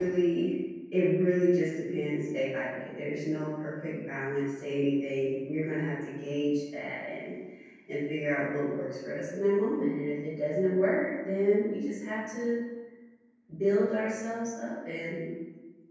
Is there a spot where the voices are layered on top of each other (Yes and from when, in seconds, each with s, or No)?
No